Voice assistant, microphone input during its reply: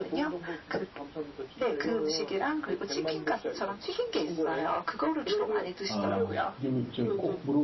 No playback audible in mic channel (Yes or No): No